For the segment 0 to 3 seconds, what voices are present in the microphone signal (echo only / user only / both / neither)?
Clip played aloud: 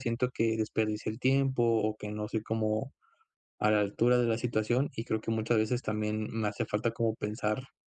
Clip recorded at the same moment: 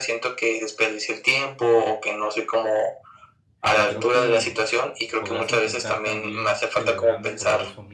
echo only